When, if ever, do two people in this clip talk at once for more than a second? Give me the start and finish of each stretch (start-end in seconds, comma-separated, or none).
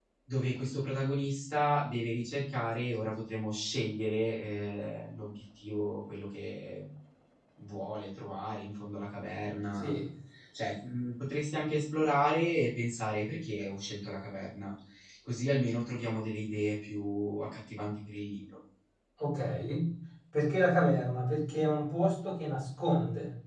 none